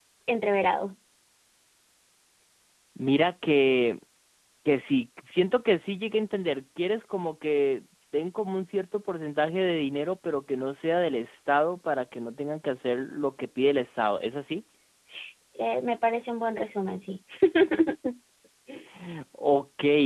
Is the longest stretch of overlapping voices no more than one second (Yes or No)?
Yes